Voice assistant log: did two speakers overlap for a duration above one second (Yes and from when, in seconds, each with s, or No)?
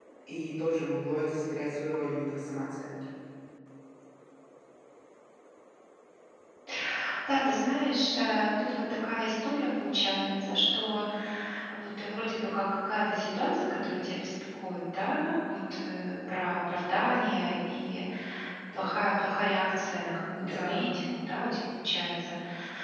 No